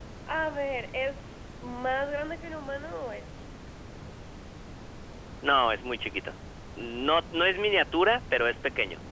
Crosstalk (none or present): none